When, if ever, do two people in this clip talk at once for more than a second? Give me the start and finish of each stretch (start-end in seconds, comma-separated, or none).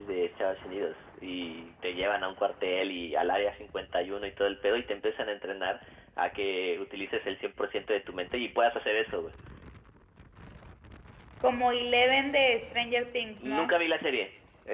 none